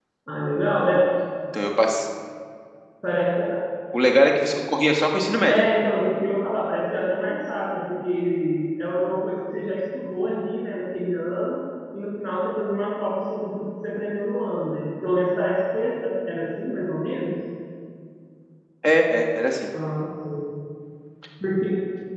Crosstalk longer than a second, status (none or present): none